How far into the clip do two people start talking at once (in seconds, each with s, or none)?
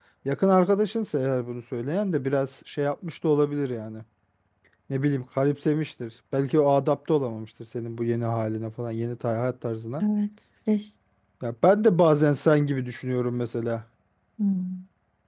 none